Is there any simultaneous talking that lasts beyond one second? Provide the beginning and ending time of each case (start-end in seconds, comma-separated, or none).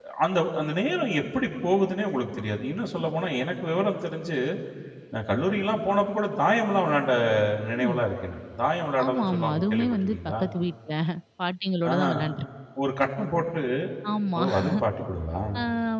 9.0-10.3